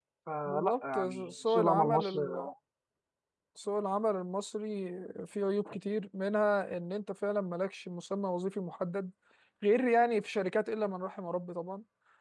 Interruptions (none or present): present